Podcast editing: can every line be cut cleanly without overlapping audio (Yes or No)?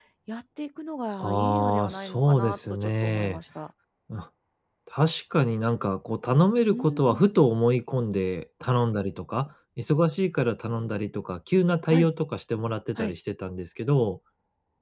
No